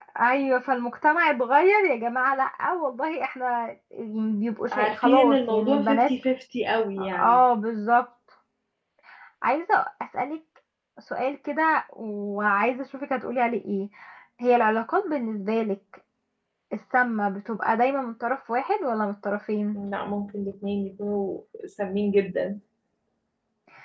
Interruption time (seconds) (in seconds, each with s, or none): 4.7 s